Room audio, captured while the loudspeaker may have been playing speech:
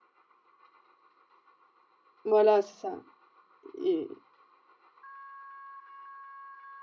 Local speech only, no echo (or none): voilà, c'est ça et